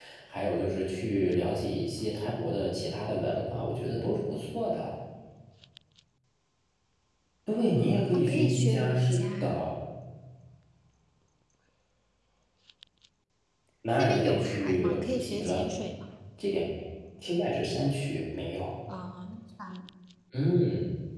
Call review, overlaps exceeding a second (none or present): present